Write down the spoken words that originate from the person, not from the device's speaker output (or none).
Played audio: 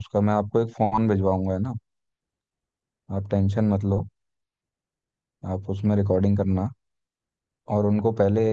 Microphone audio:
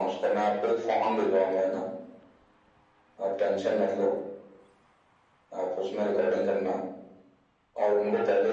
none